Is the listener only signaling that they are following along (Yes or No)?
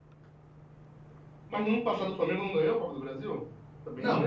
No